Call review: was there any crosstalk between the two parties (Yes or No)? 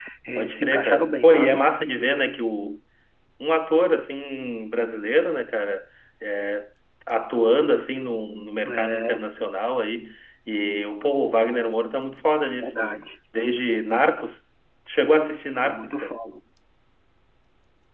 Yes